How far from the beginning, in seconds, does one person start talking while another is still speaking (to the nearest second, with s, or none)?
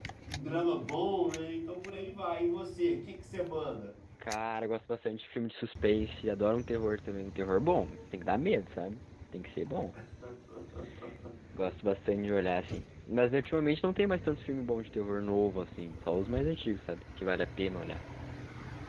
none